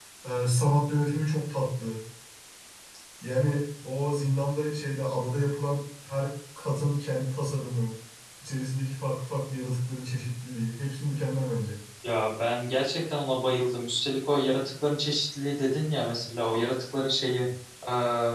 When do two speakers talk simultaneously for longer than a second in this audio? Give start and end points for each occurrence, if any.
none

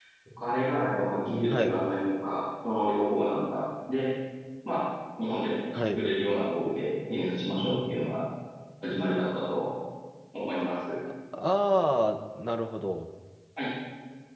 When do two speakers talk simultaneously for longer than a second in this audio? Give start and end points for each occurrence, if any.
none

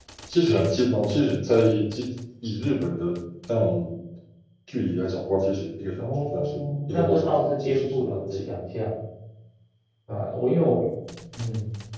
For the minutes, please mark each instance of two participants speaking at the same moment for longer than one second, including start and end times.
6.0-8.5

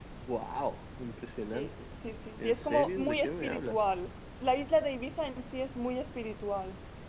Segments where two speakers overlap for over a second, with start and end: 2.4-3.8

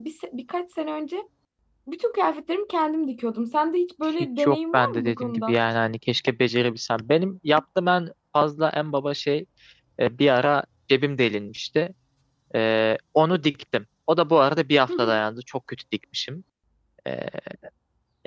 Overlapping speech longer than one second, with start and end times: 4.2-5.6

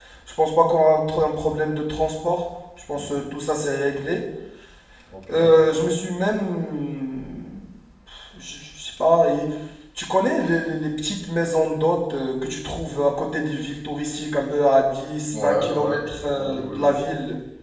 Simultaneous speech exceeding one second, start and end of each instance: 15.3-16.9

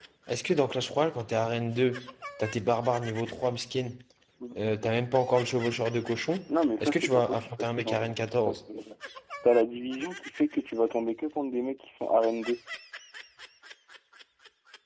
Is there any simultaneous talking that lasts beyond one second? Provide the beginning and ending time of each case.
6.8-8.5

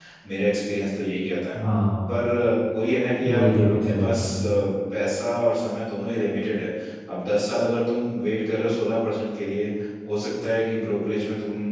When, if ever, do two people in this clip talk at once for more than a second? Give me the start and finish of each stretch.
3.2-4.4

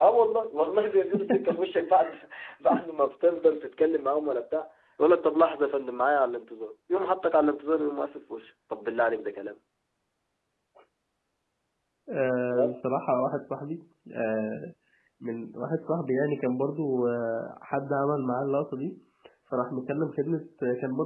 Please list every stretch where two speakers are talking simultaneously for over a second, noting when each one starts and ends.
none

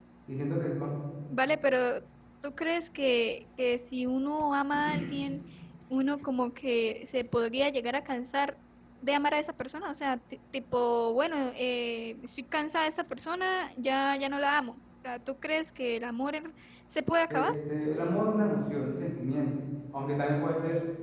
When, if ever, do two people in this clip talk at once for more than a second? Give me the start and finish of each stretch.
none

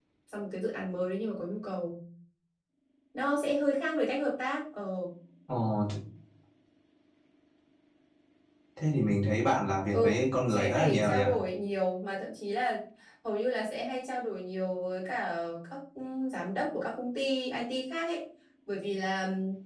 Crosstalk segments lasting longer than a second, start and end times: 9.9-11.2

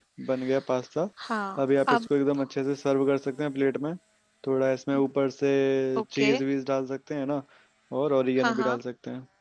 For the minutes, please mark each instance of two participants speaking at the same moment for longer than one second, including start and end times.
none

